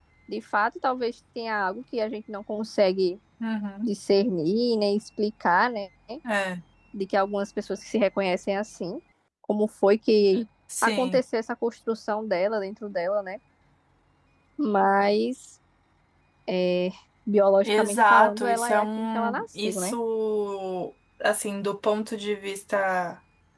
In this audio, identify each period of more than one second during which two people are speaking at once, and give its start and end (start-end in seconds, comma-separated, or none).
17.6-19.9